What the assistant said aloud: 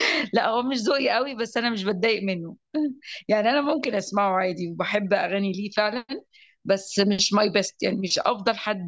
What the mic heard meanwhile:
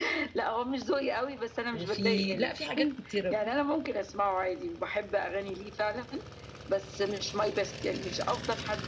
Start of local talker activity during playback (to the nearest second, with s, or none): 2 s